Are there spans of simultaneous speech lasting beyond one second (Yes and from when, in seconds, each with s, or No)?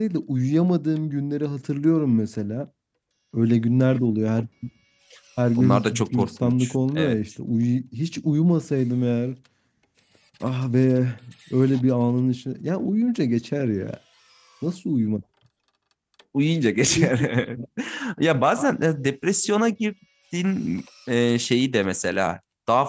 Yes, from 5.6 s